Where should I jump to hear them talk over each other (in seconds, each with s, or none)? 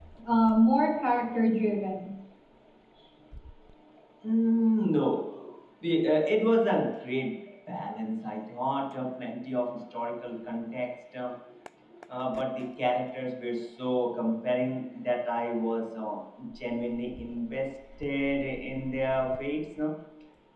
none